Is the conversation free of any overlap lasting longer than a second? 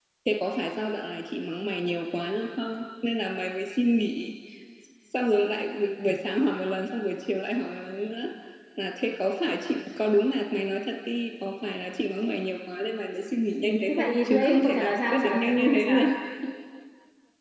No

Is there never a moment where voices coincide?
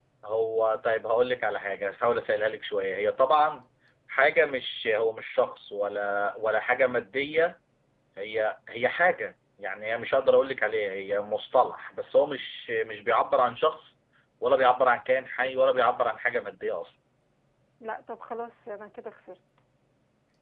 Yes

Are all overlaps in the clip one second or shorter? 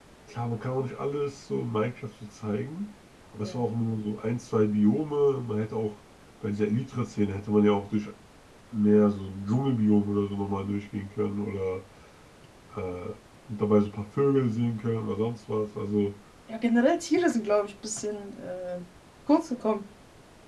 Yes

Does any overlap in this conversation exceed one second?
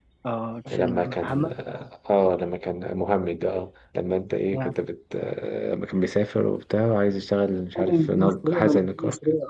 Yes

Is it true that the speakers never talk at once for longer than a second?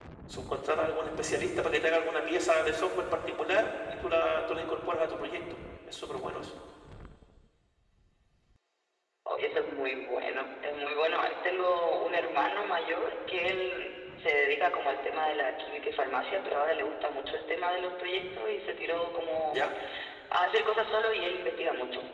Yes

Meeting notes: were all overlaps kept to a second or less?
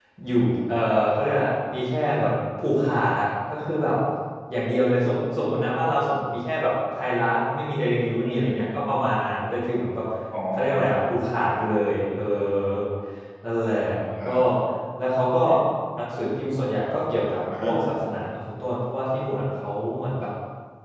Yes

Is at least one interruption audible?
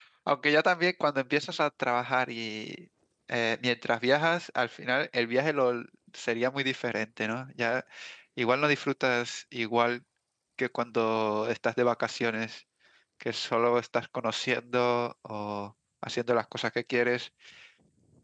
No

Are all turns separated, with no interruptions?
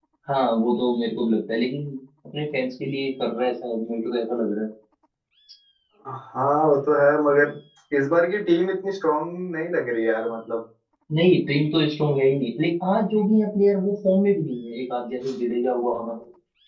Yes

